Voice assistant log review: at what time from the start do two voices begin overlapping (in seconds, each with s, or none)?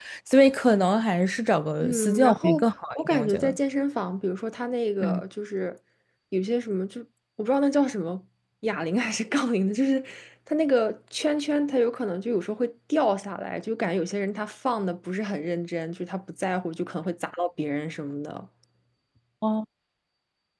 1.8 s